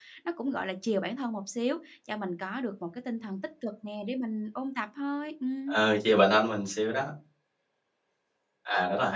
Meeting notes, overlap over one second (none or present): none